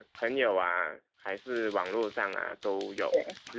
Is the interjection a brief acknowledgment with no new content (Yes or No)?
Yes